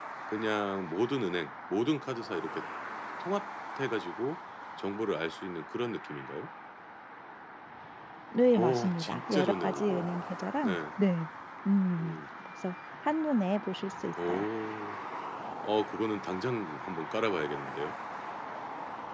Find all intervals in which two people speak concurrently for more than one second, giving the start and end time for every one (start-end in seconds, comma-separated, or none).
8.6-10.1